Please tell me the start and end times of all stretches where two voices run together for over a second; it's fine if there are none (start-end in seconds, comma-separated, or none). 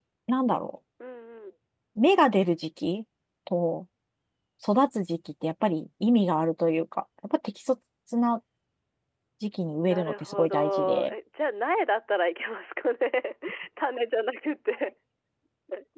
9.8-11.1